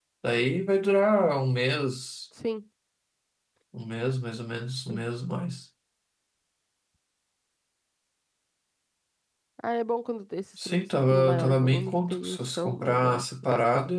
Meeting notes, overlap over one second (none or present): present